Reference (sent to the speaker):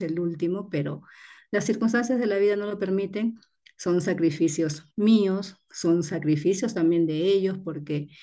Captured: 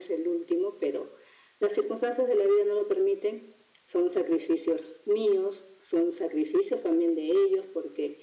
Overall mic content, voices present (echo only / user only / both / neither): echo only